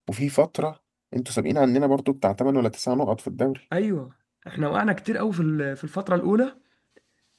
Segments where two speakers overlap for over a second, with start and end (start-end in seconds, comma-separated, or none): none